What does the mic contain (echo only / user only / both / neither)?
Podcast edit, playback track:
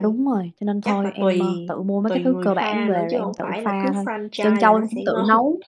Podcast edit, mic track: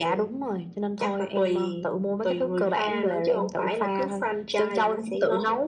echo only